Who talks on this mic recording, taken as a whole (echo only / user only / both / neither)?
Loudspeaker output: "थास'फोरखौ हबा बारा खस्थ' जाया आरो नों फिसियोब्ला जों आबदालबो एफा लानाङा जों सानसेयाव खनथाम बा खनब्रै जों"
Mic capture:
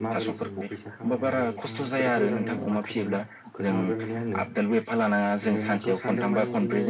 both